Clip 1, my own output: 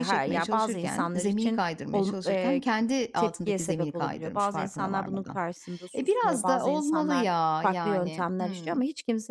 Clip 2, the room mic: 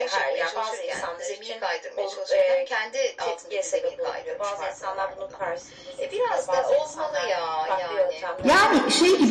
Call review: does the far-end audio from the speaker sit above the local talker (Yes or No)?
No